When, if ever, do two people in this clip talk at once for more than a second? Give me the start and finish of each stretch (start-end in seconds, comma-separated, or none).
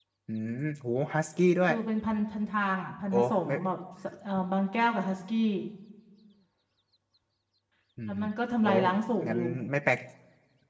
none